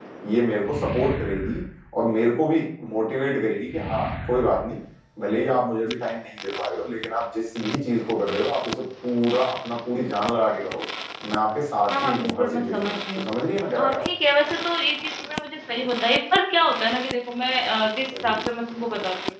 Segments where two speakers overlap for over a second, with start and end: 11.9-13.3

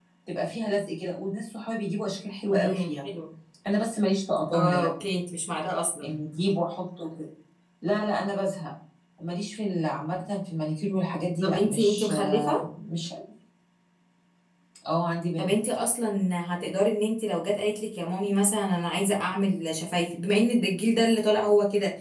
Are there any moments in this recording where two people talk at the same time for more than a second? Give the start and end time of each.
11.4-12.6

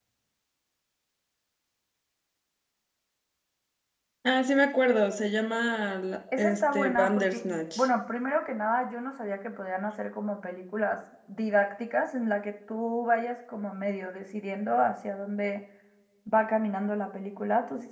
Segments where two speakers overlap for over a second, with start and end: 6.4-7.9

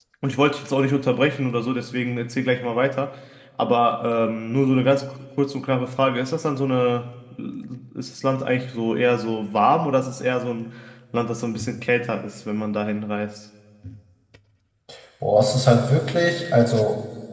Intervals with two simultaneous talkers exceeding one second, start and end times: none

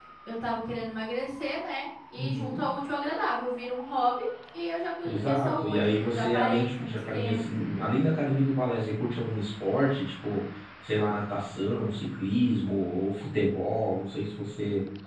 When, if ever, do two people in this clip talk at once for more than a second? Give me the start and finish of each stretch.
5.0-7.6

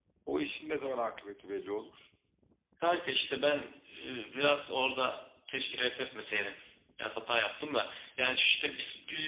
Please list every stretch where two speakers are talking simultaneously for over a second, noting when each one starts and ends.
none

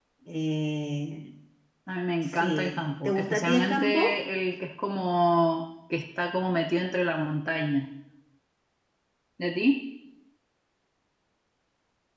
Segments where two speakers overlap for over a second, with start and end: 2.2-4.2

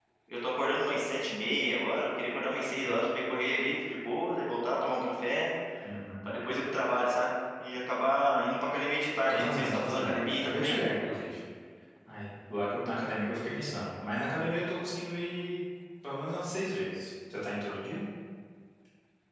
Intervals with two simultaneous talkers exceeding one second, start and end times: 9.3-10.8

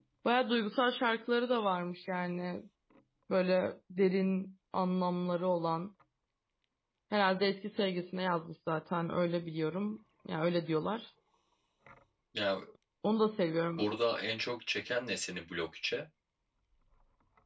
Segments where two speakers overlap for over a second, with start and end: none

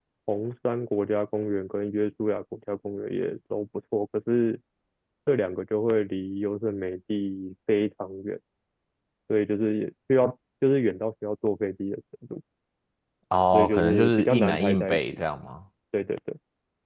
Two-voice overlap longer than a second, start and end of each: 13.5-15.0

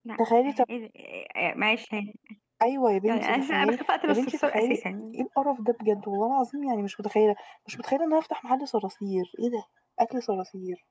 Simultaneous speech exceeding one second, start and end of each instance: 3.1-4.8

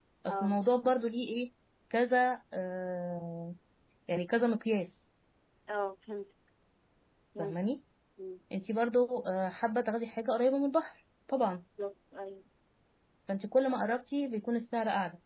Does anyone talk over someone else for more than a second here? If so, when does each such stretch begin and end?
none

